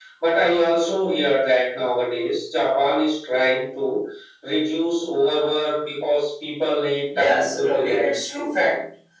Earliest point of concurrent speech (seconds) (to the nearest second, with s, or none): 7 s